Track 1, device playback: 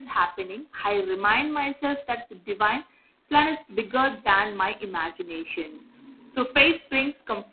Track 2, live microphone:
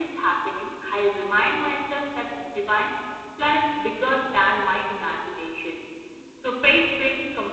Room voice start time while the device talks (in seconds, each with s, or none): none